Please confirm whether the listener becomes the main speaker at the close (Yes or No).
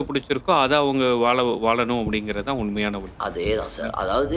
Yes